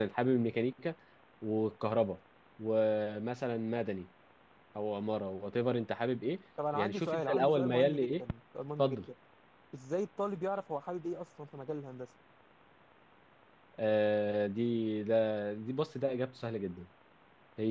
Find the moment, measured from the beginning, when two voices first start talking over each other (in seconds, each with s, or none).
6.7 s